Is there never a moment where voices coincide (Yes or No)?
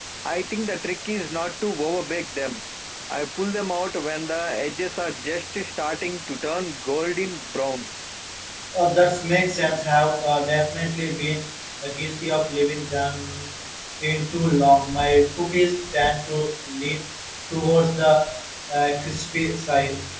Yes